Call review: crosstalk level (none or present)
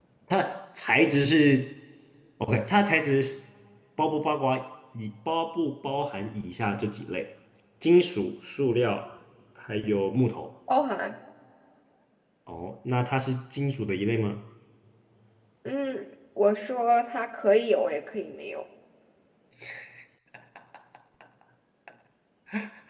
none